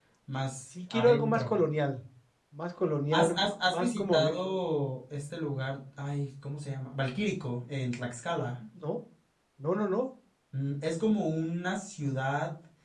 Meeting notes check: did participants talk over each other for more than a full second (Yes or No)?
Yes